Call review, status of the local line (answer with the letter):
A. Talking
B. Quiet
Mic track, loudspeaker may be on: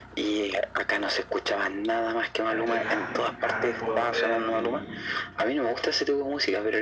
A